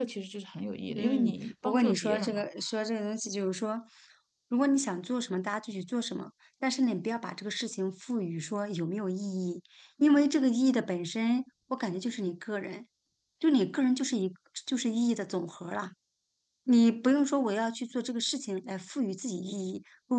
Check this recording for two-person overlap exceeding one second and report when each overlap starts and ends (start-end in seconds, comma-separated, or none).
0.9-2.4